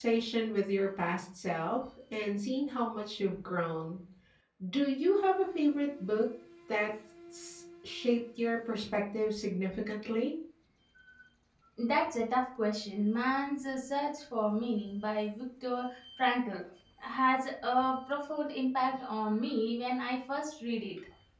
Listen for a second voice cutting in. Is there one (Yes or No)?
No